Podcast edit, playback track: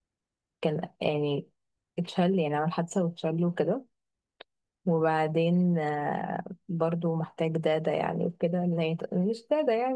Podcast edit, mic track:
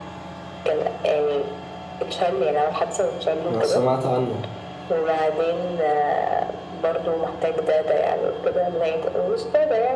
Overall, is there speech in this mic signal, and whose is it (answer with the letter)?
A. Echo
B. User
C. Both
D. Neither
C